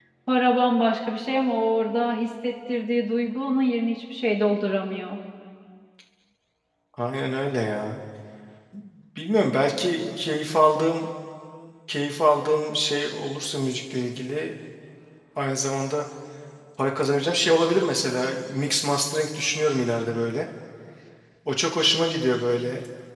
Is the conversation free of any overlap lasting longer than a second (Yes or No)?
Yes